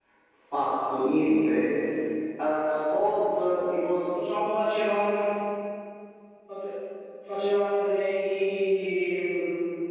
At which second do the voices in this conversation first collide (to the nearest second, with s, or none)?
none